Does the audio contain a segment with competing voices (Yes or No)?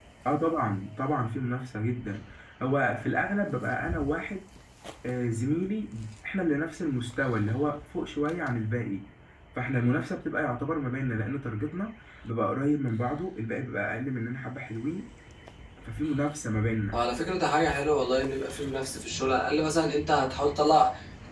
No